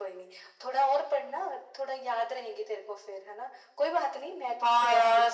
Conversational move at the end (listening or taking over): taking over